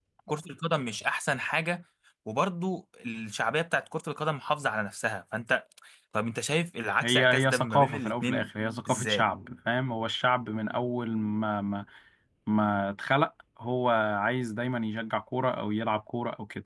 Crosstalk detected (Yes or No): Yes